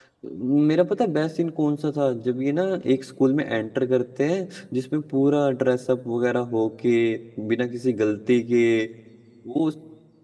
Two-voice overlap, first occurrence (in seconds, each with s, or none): none